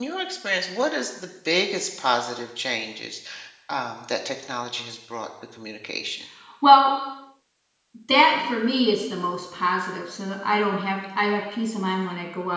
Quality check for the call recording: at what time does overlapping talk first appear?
none

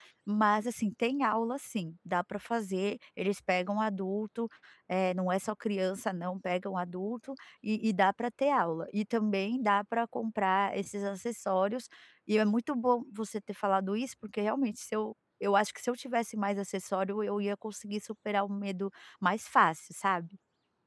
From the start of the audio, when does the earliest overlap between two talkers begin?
none

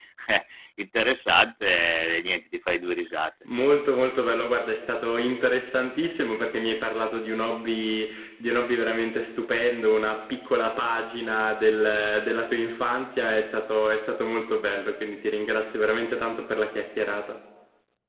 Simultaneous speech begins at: none

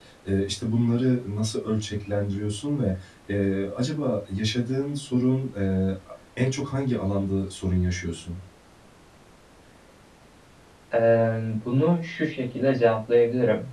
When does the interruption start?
none

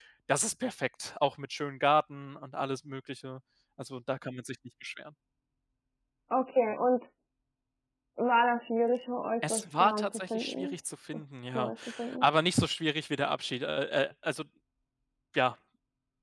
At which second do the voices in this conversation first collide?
9.4 s

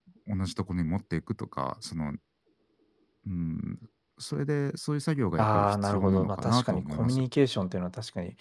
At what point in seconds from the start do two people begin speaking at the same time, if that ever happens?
5.4 s

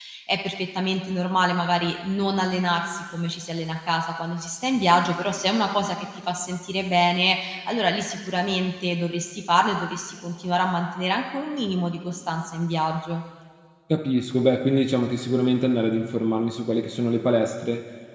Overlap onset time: none

